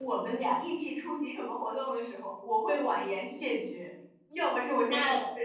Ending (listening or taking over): listening